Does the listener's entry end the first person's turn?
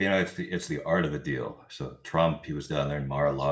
No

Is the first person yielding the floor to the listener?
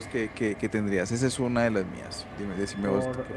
Yes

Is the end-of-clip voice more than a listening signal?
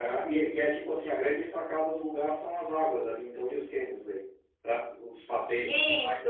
Yes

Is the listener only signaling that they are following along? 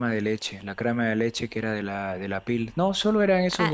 No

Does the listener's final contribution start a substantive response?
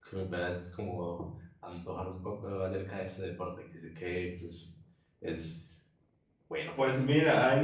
Yes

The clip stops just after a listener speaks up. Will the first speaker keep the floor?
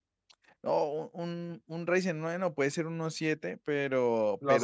Yes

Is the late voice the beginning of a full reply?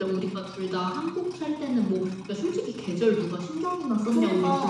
Yes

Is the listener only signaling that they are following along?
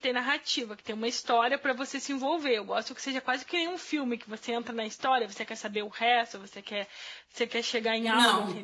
No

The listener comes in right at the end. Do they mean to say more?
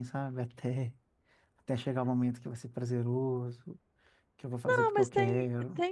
Yes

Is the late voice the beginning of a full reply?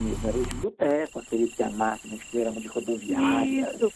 Yes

